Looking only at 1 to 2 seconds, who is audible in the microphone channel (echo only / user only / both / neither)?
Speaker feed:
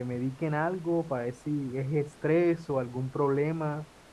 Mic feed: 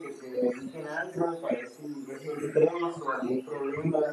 echo only